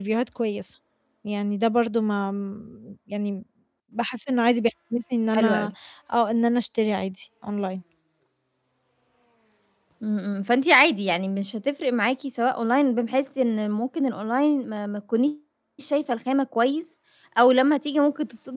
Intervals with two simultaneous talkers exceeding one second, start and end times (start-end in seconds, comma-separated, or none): none